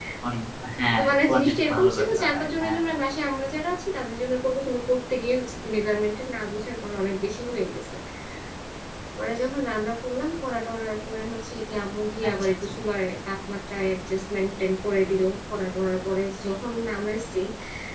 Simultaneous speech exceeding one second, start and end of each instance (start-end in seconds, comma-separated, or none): 0.9-2.8